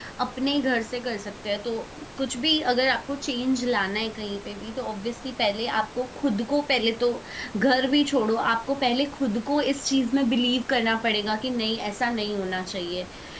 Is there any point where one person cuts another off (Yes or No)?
No